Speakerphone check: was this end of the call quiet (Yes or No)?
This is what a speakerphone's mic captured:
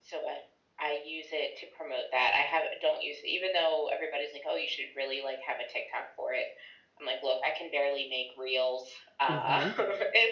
No